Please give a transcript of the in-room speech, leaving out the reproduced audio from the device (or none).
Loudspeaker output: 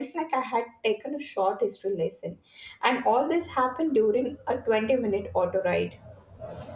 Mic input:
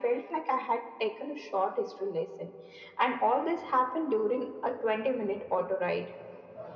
none